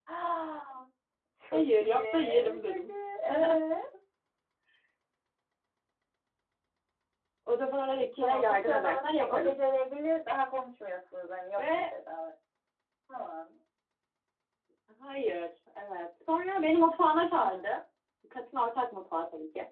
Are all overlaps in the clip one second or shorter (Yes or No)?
No